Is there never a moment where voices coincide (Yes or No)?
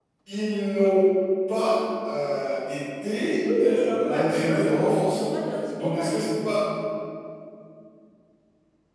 No